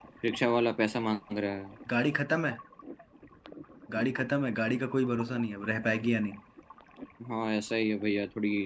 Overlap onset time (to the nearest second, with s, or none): none